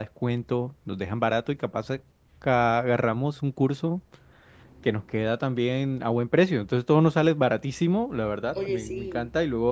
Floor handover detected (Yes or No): No